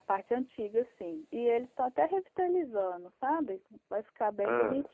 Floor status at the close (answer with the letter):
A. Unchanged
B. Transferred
A